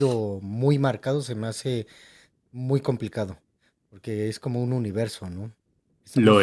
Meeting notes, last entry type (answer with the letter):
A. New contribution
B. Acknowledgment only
B